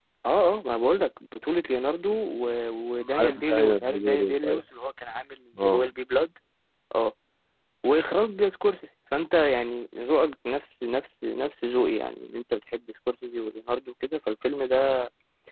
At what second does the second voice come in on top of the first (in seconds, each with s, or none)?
3.2 s